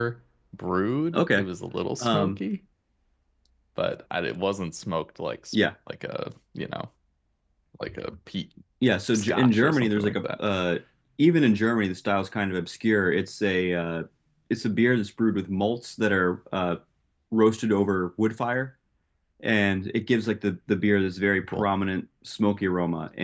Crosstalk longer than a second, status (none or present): present